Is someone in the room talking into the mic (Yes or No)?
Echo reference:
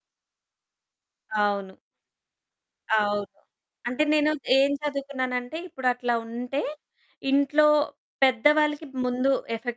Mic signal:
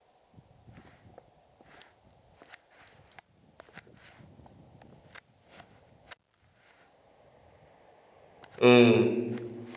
Yes